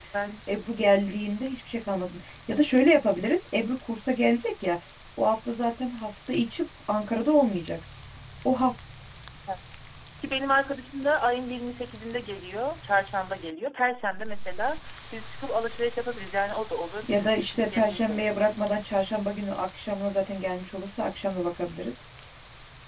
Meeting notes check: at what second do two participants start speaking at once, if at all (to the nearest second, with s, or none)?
17 s